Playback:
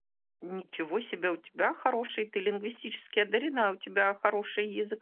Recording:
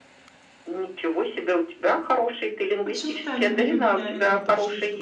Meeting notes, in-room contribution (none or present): present